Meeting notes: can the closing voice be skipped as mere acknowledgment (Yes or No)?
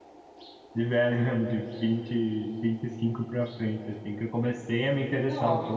Yes